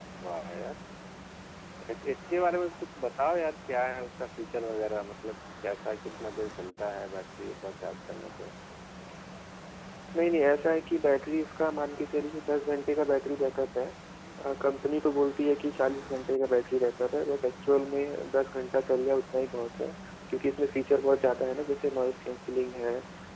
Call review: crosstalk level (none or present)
none